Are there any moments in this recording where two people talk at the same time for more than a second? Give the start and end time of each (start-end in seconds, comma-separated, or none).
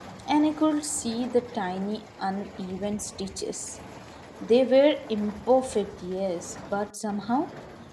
none